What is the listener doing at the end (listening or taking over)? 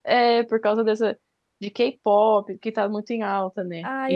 taking over